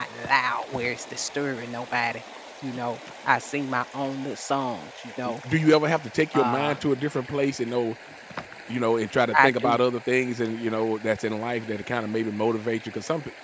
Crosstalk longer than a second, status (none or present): none